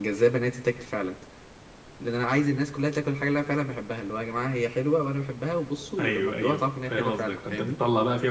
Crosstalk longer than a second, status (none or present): present